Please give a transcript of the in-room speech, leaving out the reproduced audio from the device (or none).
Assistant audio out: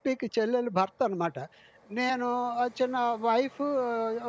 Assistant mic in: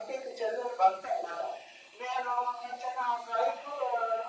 none